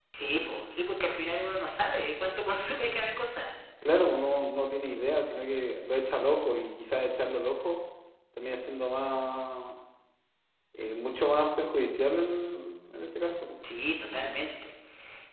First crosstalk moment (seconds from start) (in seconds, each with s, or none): none